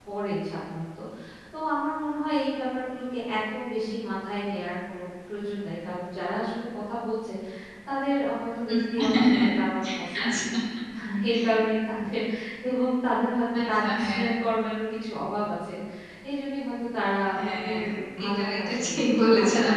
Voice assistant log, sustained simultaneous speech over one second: present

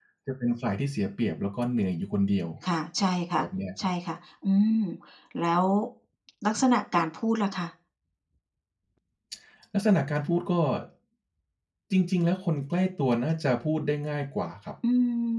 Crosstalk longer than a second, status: none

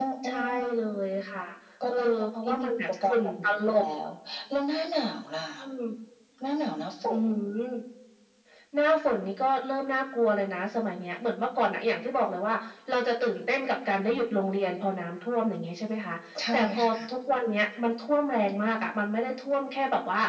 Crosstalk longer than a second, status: present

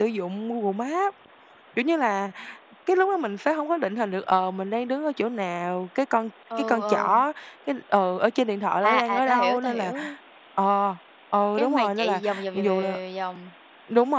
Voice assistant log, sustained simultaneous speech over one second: present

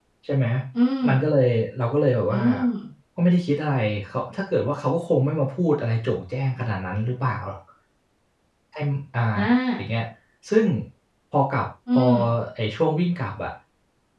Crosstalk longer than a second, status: none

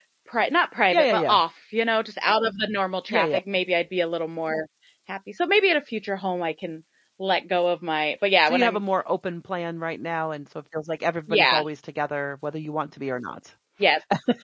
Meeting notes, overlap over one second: none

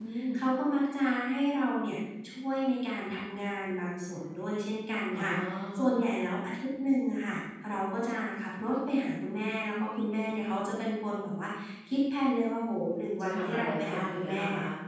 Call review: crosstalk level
present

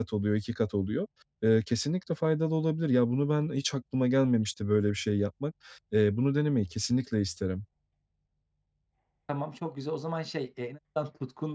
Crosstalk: none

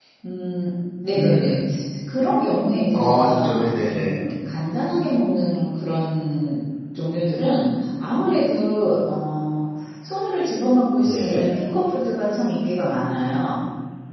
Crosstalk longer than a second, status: present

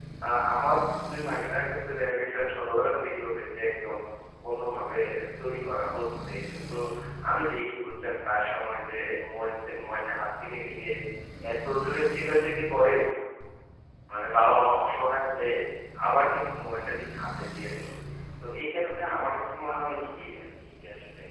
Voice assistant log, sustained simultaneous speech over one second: present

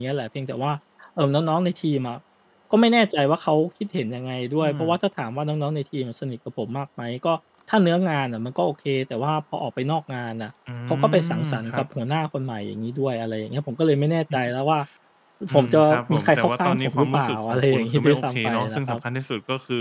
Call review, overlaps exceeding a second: present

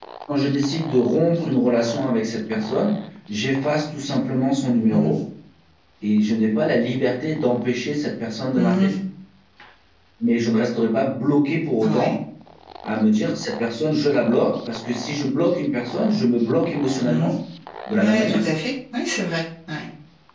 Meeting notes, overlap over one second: none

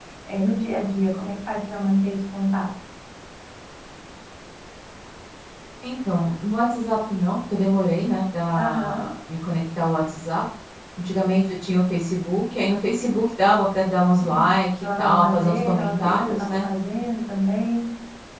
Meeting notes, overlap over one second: present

